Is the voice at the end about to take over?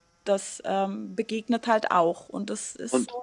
Yes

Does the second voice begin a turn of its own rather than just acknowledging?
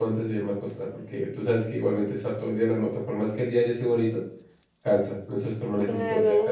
Yes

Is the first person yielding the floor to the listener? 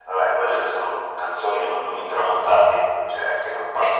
No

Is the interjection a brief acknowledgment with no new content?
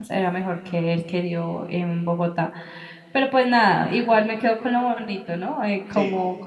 Yes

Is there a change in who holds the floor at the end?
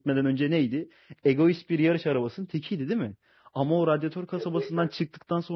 No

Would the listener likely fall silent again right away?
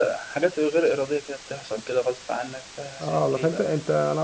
No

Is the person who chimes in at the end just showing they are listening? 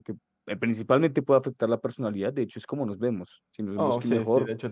No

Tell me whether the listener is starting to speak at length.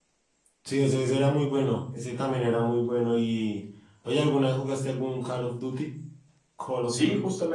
Yes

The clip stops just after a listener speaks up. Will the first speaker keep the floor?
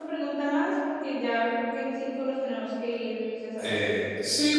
No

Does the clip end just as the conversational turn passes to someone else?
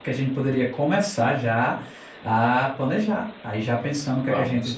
No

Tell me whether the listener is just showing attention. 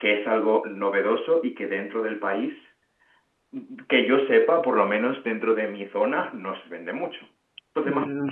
No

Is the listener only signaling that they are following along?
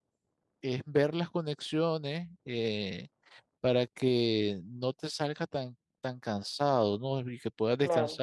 Yes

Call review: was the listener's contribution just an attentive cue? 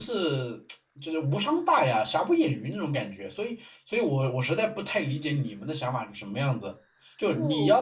Yes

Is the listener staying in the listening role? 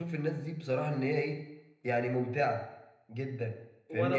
No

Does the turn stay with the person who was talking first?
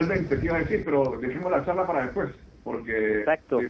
Yes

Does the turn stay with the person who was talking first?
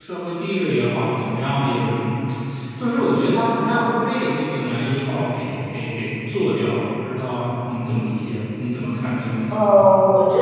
No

